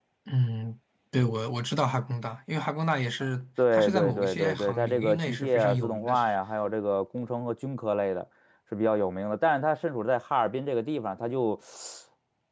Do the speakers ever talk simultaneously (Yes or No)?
Yes